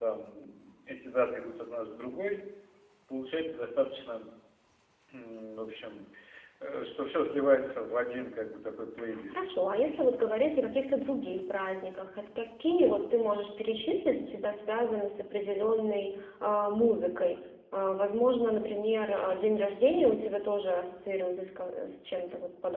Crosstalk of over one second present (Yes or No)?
No